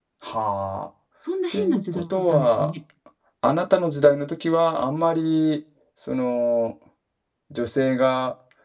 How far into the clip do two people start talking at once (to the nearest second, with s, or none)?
2 s